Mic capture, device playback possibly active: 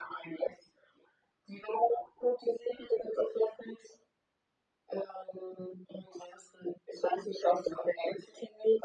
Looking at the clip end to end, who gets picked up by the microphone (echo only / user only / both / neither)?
echo only